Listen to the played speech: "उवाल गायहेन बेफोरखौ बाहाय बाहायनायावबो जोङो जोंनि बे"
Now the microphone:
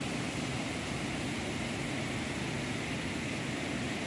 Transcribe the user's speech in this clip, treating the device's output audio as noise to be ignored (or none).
none